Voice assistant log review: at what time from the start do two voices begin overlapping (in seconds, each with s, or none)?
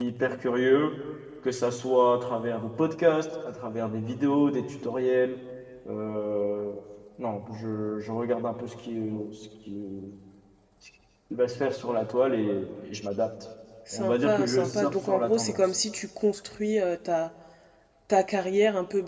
13.9 s